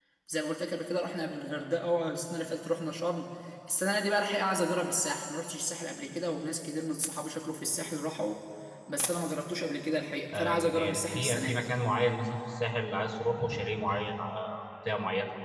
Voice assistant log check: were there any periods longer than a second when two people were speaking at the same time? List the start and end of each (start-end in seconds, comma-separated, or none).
10.3-11.6